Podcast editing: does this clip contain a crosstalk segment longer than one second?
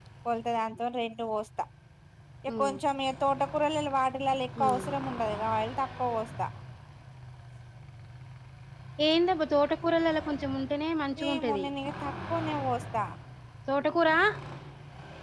No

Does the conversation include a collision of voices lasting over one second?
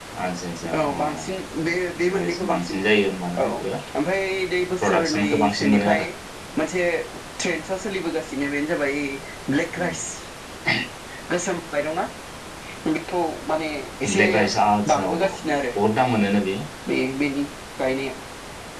Yes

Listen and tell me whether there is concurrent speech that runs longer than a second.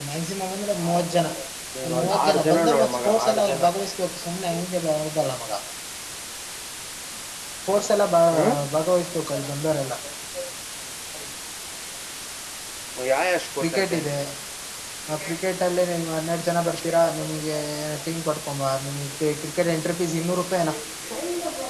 Yes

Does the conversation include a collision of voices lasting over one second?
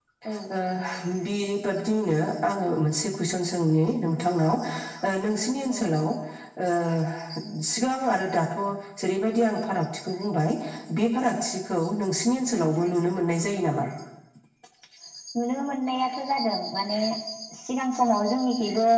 No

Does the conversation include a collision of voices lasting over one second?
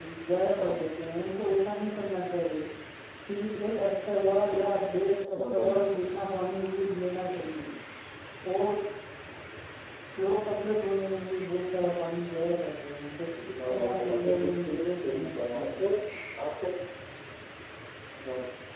Yes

